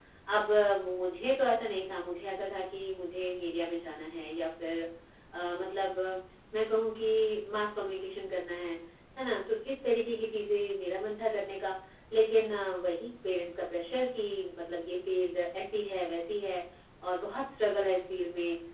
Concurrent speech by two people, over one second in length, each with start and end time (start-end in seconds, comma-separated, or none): none